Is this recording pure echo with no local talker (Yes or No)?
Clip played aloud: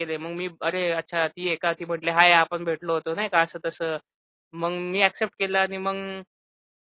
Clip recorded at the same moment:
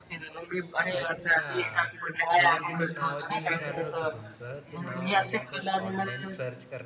No